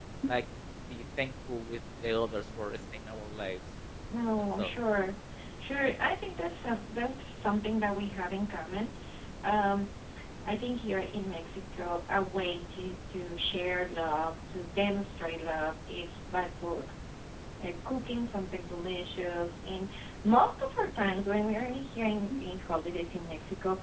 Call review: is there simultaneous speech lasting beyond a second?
No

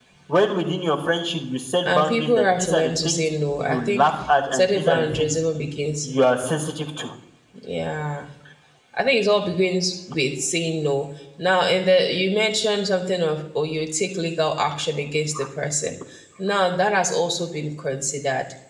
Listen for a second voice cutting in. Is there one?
Yes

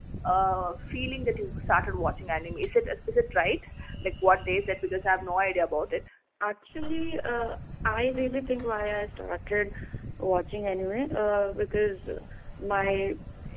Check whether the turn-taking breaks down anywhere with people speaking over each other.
No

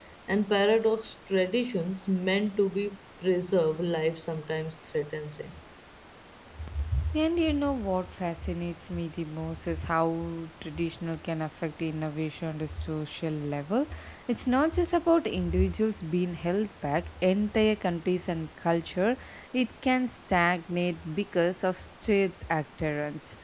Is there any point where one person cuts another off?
No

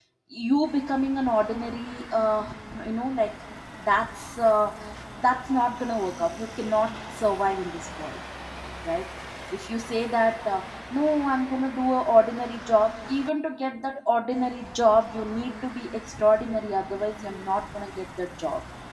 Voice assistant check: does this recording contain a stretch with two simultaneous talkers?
No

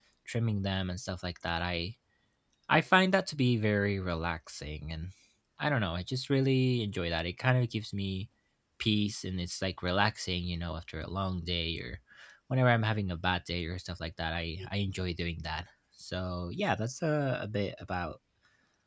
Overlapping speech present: No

